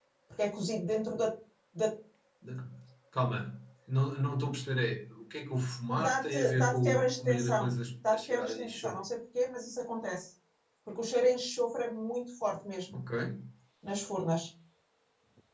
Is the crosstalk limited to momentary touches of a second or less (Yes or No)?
No